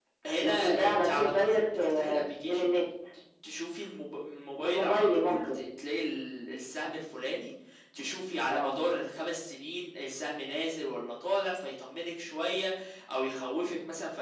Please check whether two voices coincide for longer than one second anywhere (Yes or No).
Yes